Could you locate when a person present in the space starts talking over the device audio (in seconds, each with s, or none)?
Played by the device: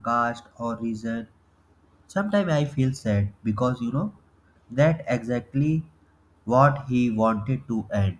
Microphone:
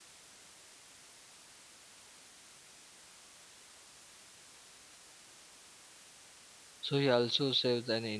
6.8 s